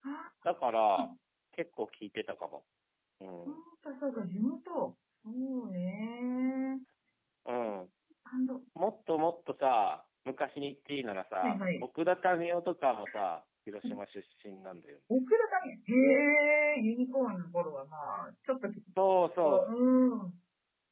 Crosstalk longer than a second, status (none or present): none